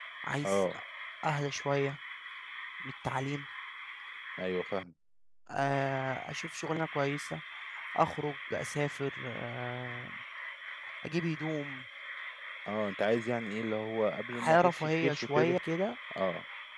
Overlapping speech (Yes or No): Yes